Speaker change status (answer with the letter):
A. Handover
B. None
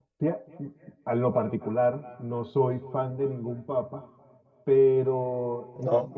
B